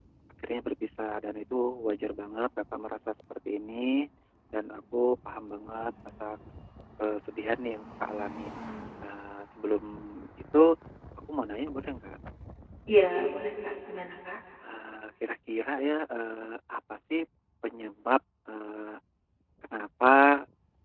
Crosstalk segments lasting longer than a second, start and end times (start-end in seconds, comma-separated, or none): none